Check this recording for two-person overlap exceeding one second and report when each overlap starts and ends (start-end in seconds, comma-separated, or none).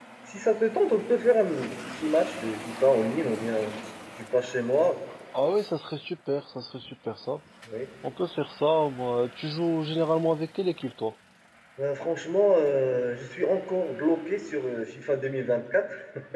none